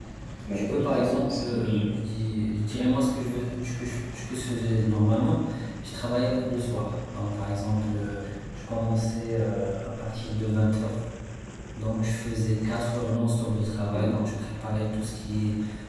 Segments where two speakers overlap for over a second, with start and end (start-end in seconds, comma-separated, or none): 0.5-1.9